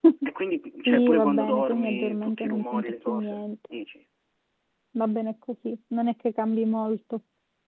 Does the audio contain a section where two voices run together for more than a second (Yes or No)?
Yes